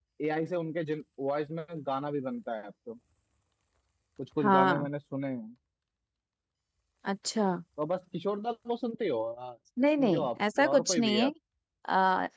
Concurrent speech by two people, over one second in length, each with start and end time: 10.0-11.3

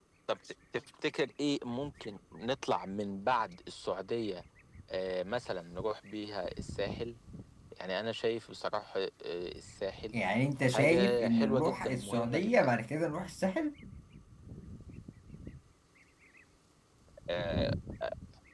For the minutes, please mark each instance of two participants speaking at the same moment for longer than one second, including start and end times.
10.7-12.7

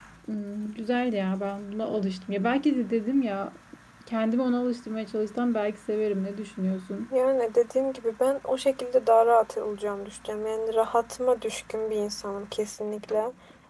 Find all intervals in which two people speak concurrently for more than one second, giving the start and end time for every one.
none

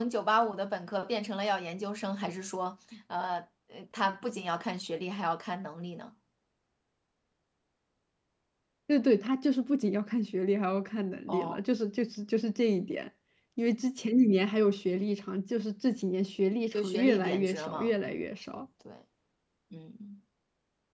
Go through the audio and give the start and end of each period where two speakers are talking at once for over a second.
16.7-17.9

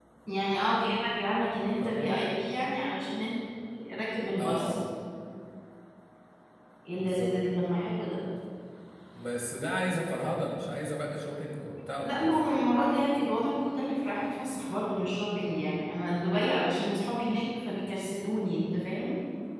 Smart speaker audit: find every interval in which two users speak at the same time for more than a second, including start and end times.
none

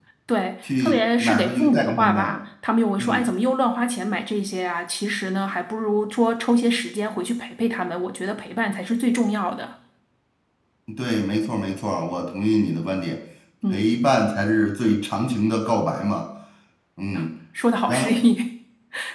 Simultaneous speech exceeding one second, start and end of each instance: 0.8-2.4

